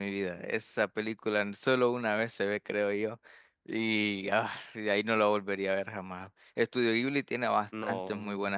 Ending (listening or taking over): listening